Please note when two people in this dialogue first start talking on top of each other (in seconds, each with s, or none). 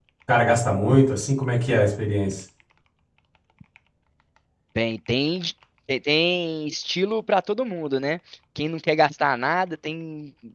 none